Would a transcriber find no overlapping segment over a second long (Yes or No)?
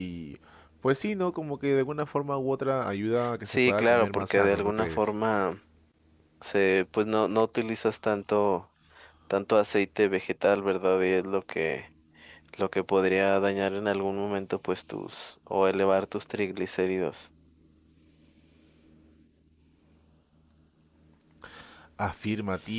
No